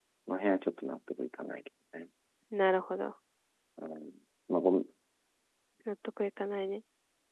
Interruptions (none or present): none